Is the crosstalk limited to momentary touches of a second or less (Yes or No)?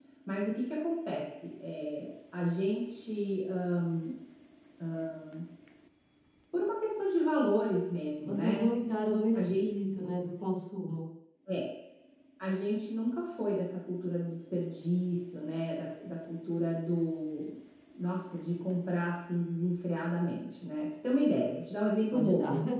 Yes